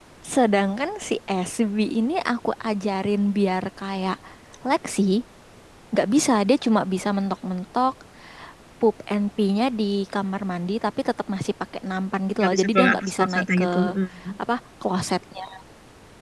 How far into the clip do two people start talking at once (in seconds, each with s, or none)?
12.4 s